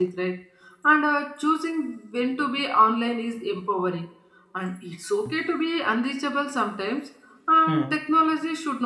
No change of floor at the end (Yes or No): Yes